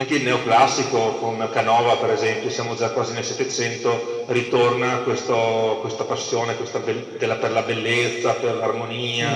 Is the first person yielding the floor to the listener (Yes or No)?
Yes